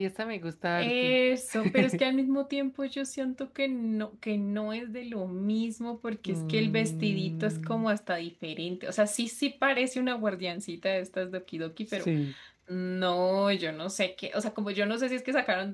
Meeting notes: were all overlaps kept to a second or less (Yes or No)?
No